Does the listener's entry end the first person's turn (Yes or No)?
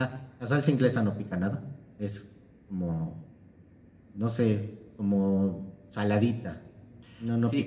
Yes